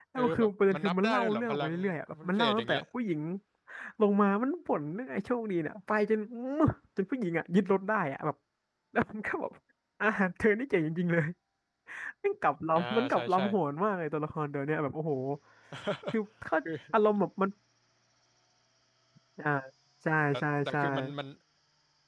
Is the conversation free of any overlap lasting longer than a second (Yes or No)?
No